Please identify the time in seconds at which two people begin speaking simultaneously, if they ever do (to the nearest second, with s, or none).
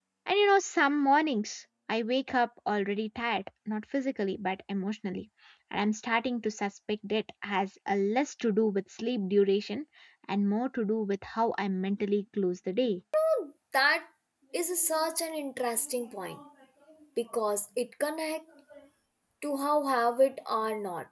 none